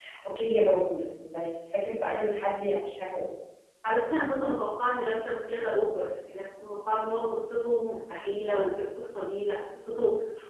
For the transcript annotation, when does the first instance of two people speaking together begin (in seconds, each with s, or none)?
none